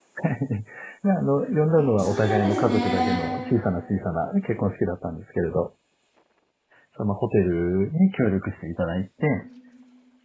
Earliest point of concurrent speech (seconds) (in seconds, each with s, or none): 1.8 s